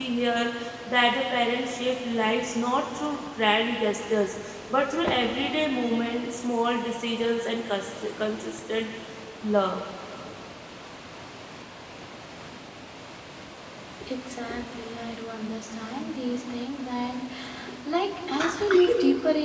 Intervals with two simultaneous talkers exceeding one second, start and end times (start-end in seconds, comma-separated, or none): none